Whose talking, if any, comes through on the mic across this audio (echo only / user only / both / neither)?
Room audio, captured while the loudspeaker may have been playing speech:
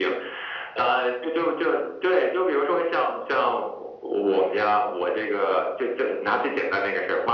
echo only